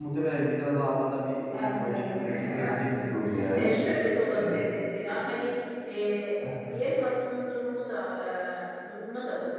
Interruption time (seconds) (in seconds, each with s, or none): 1.5 s